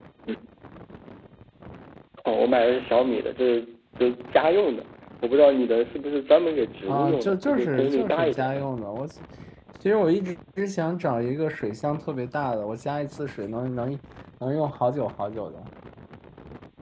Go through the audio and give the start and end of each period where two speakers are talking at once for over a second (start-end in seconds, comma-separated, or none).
6.9-8.7